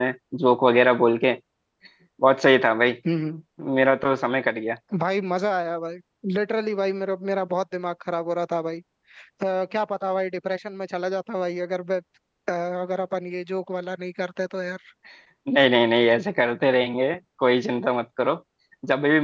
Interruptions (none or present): none